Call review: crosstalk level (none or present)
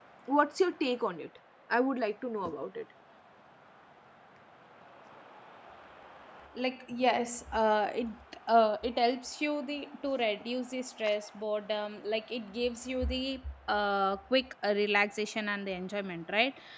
none